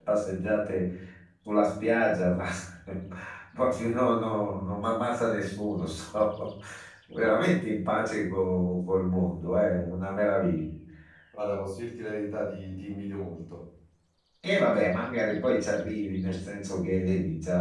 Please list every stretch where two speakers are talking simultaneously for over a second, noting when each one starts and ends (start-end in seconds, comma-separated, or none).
none